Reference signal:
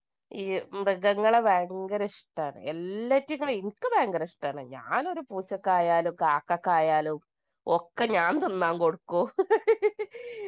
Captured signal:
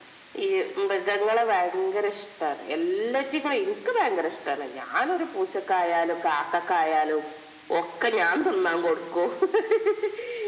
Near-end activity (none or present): none